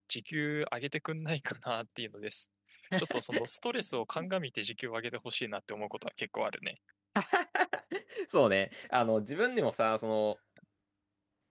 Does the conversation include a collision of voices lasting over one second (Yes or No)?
No